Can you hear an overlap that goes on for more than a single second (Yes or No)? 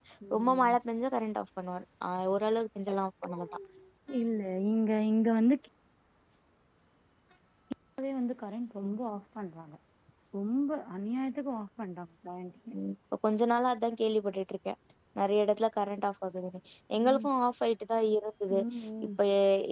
No